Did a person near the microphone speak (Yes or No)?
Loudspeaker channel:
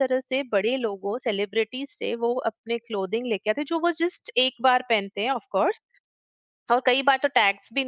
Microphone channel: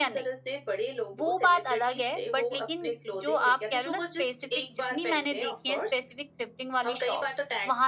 Yes